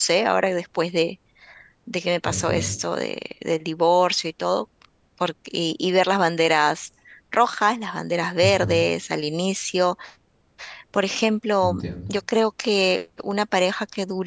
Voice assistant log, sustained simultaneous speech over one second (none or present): none